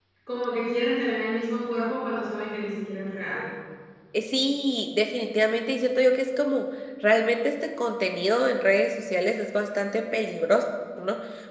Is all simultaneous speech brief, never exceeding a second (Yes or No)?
Yes